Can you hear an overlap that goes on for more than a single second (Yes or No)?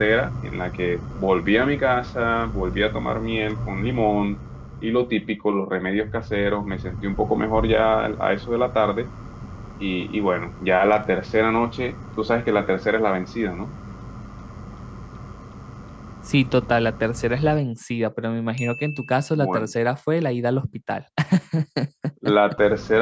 No